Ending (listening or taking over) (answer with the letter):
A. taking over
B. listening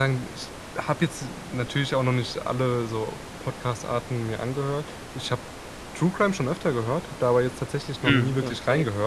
B